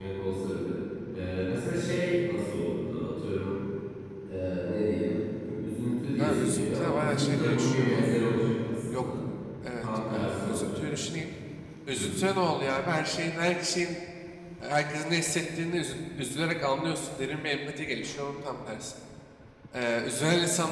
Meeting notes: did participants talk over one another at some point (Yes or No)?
Yes